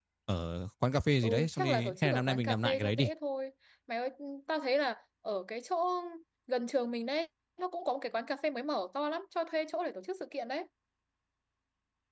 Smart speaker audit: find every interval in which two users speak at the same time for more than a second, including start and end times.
1.2-3.1

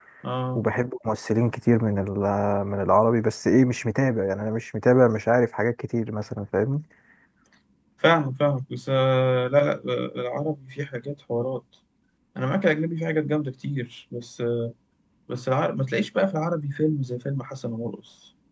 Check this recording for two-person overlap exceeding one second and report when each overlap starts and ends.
none

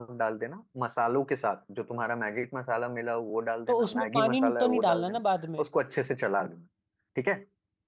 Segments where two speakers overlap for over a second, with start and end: 3.7-5.2

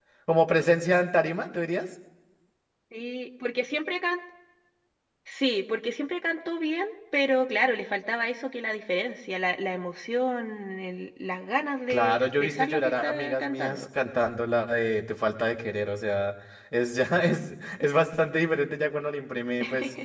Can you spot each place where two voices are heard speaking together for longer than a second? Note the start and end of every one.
11.9-13.8

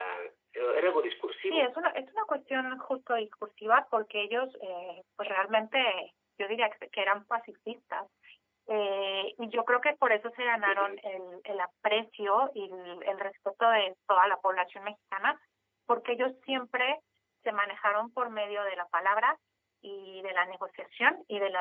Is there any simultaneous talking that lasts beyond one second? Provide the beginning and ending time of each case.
none

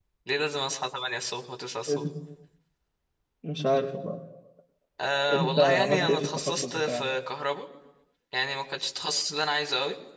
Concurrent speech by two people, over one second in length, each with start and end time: 5.3-7.0

